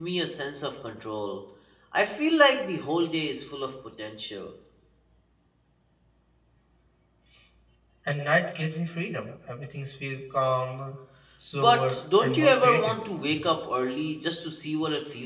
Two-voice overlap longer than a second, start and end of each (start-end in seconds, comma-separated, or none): 11.5-12.9